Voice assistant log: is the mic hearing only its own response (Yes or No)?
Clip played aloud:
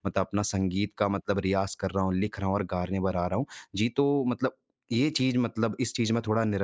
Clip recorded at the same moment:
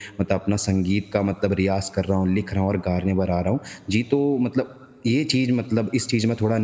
Yes